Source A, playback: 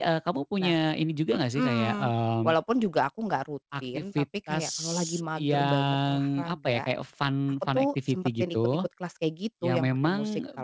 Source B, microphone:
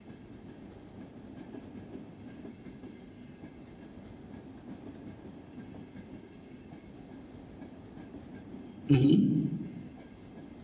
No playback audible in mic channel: Yes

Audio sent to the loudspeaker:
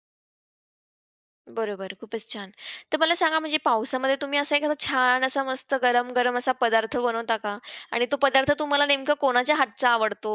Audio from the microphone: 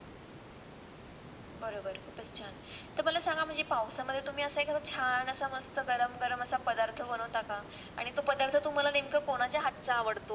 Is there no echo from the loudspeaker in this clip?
No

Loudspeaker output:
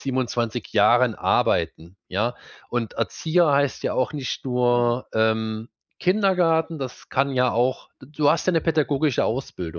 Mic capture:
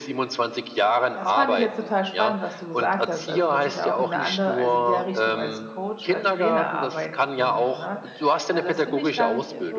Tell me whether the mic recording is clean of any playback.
No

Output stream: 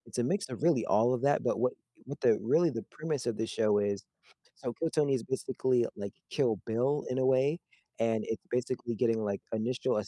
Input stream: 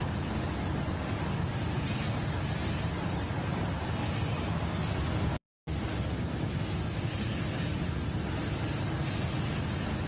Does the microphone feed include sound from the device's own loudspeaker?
No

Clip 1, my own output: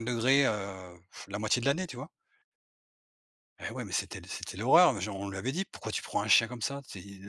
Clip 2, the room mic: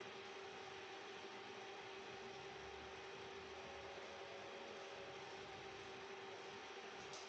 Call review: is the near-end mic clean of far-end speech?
Yes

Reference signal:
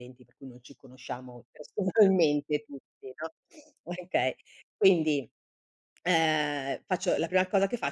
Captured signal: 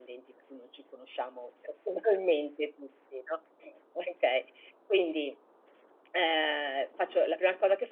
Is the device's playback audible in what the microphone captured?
Yes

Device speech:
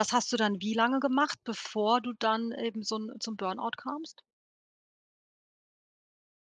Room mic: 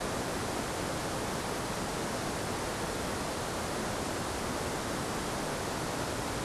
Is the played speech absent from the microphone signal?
Yes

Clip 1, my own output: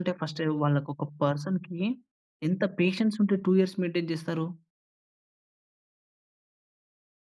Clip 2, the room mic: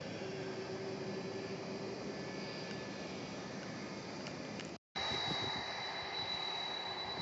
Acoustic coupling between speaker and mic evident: No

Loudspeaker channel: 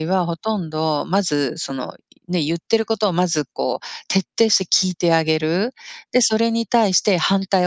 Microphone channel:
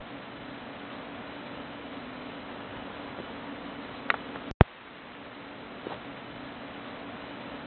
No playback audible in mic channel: Yes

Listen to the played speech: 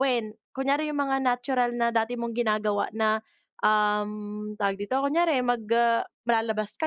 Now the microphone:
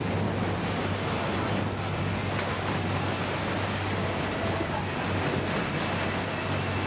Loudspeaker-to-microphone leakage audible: No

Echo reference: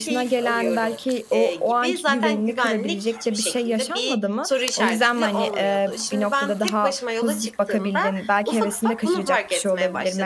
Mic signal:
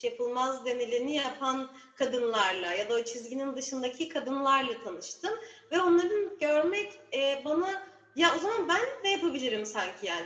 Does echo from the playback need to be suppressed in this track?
No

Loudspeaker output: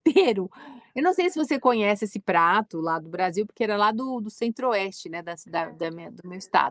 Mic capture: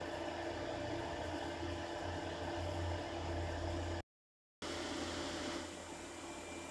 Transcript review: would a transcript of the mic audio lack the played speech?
Yes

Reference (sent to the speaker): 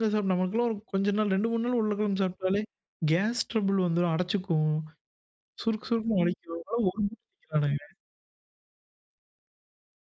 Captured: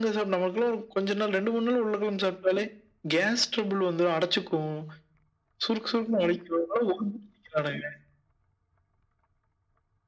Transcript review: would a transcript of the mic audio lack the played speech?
No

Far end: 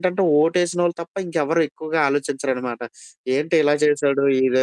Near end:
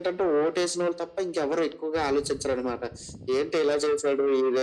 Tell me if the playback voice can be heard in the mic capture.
Yes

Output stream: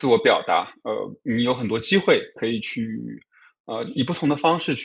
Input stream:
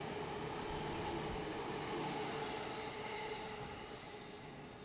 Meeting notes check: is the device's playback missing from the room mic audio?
Yes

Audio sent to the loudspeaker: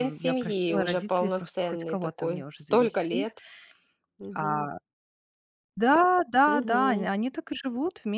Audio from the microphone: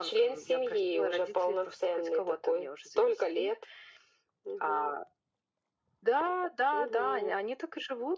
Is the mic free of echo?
No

